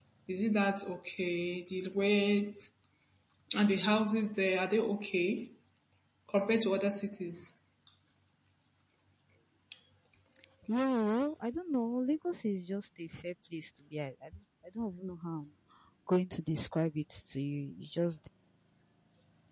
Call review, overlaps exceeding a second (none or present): none